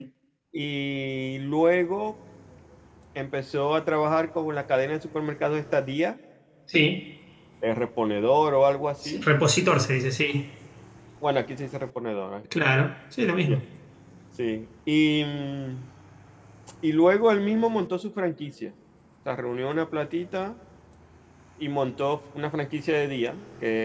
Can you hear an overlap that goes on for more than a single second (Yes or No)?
No